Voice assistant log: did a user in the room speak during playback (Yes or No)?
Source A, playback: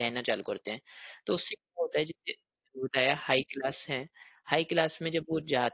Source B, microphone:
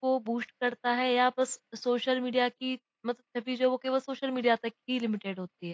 Yes